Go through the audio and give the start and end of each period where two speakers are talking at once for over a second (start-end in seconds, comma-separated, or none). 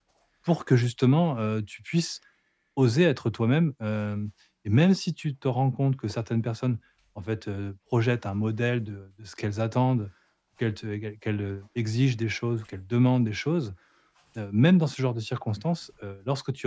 none